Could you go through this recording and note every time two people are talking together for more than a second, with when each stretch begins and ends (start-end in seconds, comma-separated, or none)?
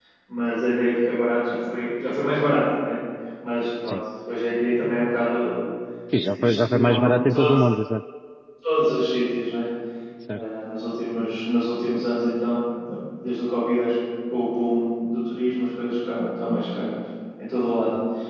6.1-7.6